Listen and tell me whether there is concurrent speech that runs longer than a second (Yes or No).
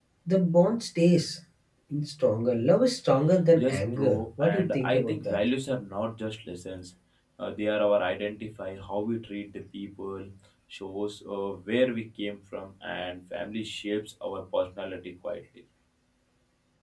Yes